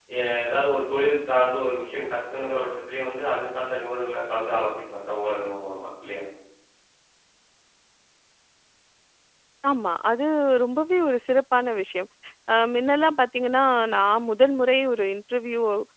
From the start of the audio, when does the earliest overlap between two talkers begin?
none

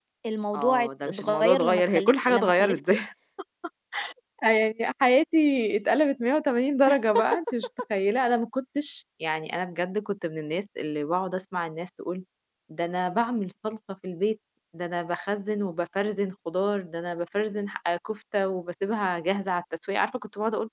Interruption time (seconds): 0.5 s

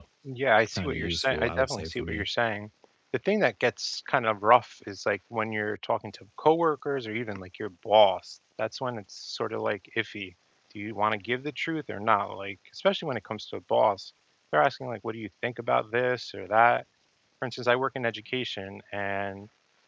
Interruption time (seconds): 0.8 s

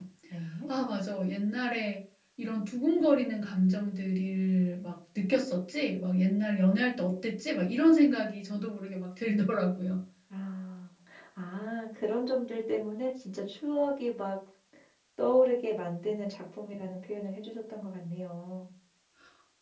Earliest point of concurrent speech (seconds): none

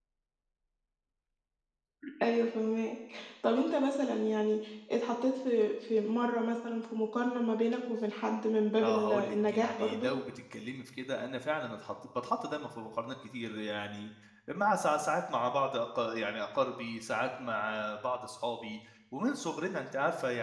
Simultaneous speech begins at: 8.7 s

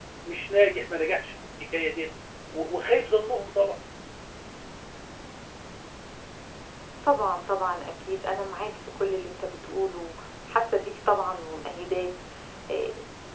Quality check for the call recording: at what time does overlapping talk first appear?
none

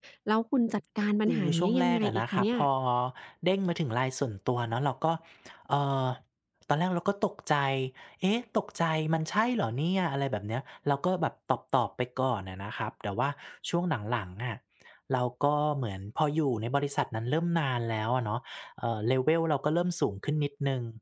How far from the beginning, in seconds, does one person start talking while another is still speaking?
1.3 s

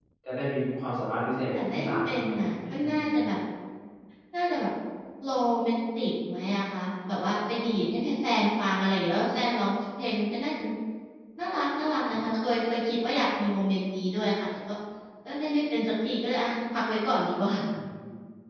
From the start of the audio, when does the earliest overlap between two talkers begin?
1.5 s

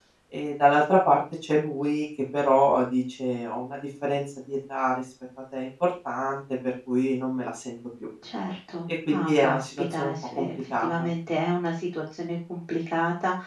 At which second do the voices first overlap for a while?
9.1 s

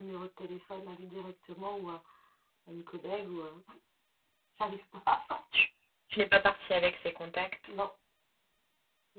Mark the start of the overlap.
none

